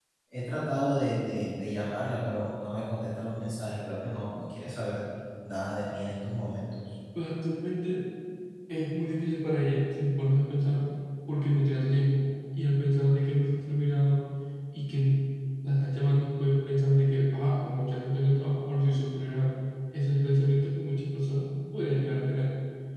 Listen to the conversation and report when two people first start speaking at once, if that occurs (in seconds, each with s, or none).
none